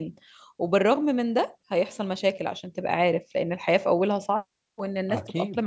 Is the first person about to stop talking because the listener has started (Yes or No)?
No